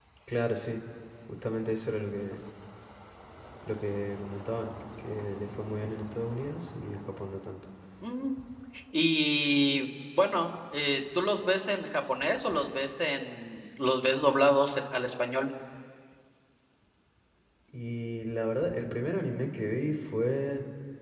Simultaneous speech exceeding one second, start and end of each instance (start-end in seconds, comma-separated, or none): none